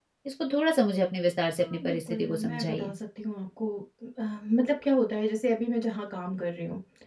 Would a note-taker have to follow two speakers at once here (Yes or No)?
Yes